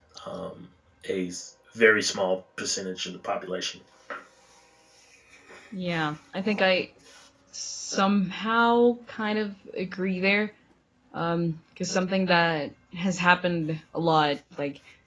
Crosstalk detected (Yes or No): No